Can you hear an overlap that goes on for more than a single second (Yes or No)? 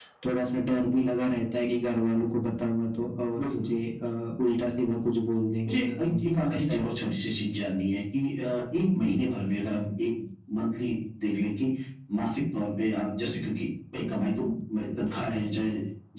Yes